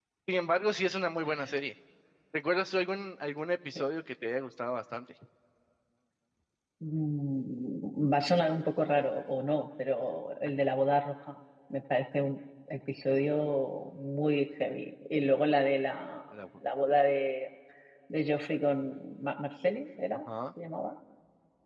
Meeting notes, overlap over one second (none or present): none